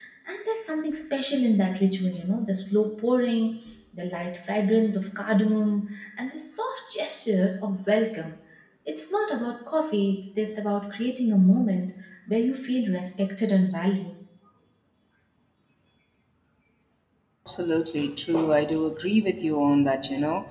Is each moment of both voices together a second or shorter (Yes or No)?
Yes